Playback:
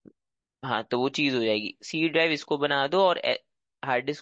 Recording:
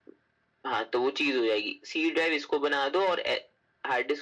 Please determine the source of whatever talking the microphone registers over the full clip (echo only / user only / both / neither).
echo only